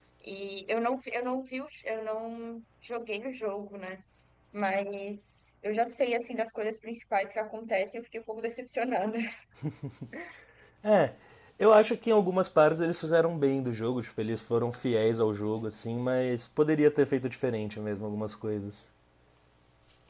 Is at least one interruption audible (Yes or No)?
No